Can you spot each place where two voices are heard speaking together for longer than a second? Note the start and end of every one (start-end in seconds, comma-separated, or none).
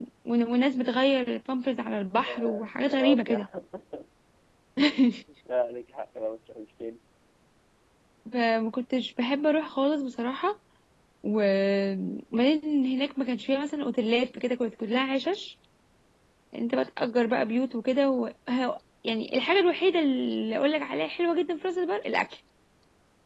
2.3-3.5